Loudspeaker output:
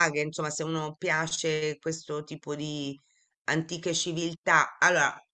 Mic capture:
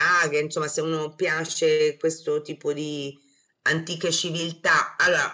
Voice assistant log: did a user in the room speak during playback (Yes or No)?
No